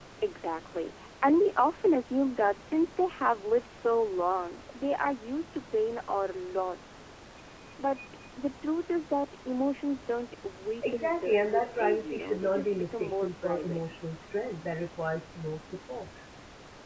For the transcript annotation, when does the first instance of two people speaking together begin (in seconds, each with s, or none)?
10.8 s